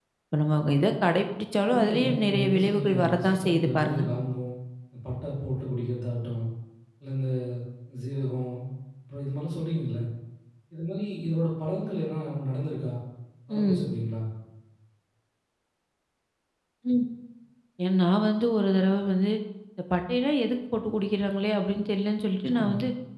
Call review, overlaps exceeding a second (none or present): present